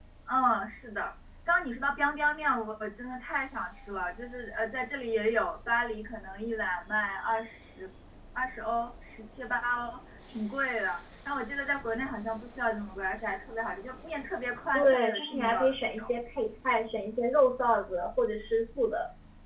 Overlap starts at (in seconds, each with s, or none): 14.7 s